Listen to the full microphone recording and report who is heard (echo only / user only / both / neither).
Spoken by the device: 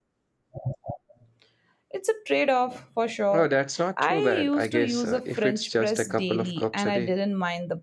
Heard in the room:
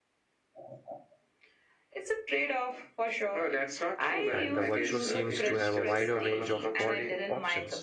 both